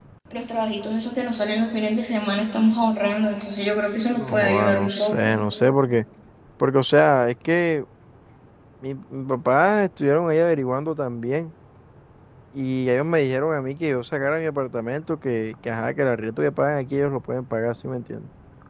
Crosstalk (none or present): present